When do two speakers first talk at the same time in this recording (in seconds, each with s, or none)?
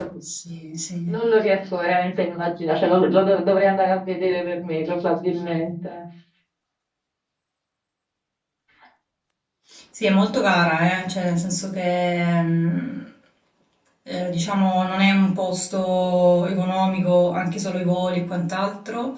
none